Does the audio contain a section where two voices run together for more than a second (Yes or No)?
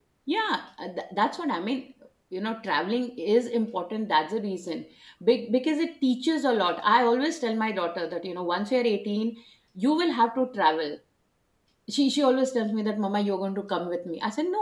No